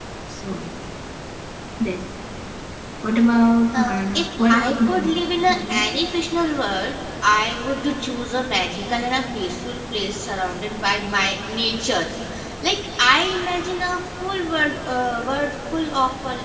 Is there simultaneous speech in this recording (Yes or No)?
Yes